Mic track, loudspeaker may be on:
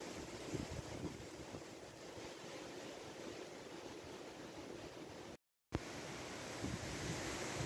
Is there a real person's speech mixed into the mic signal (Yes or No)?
No